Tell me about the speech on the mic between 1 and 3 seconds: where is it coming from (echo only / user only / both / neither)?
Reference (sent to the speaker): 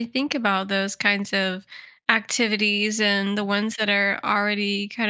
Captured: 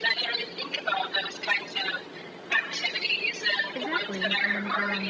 echo only